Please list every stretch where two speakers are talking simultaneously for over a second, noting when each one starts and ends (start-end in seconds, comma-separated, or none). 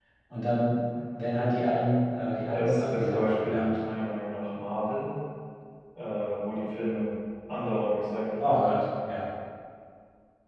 2.5-3.8